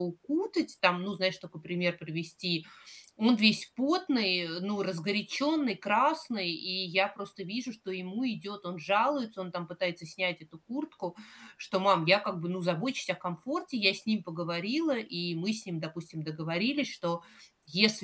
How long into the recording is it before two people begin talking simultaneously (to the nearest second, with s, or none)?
none